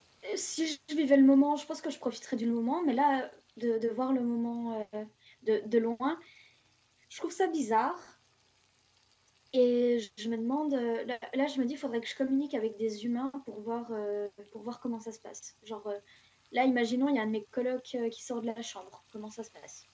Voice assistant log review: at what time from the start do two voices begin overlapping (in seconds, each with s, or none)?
none